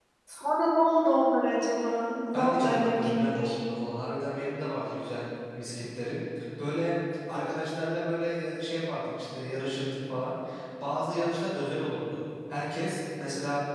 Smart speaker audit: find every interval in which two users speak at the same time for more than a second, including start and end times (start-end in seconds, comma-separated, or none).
2.3-3.6